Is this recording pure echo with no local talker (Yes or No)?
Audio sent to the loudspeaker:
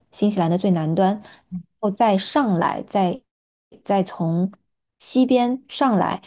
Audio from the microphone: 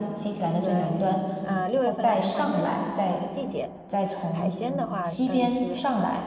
No